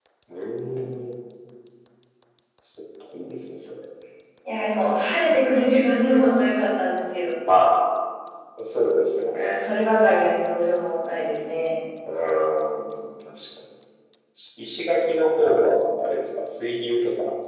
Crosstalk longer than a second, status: none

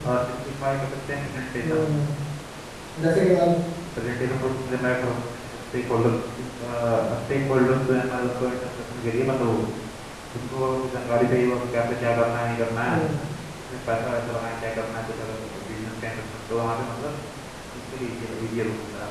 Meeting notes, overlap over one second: none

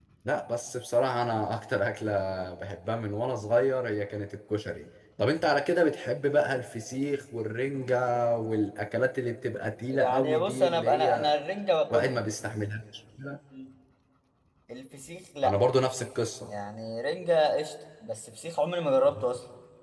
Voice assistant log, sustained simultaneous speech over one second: present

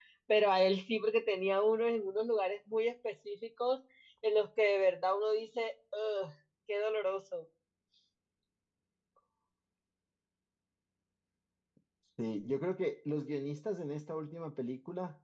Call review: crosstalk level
none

